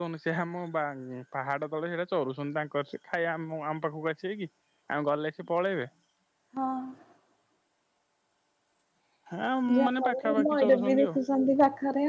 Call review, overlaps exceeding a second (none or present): present